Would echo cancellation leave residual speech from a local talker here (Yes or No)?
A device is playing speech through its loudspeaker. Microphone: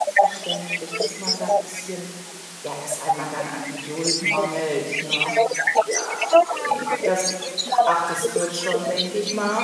Yes